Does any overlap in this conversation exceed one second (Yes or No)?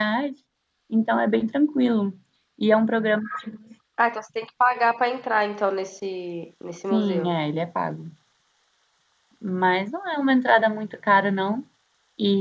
No